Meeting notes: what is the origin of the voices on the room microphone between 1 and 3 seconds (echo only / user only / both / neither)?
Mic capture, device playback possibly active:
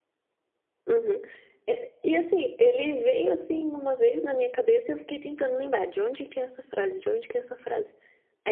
user only